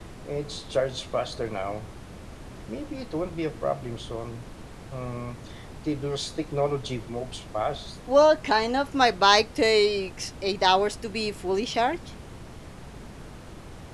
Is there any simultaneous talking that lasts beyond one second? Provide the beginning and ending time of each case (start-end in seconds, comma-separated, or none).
none